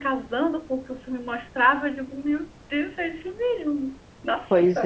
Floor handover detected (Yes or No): Yes